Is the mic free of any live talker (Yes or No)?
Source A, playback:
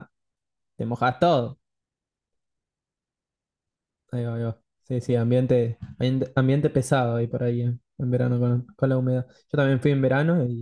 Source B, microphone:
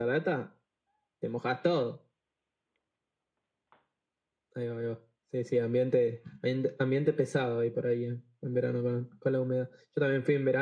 Yes